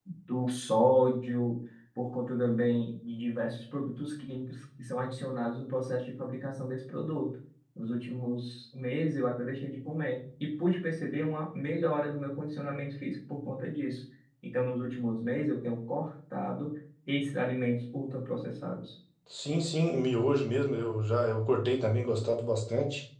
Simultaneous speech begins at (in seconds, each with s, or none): none